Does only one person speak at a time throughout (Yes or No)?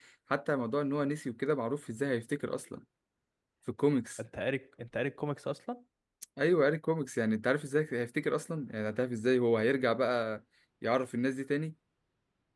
Yes